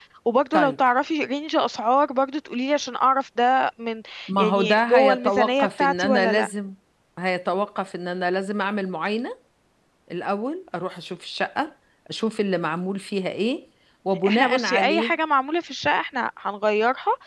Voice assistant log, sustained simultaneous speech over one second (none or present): present